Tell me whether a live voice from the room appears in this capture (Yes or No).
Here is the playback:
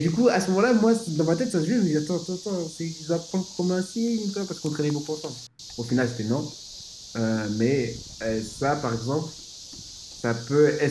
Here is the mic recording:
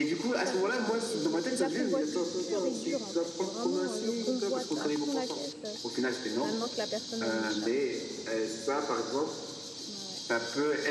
Yes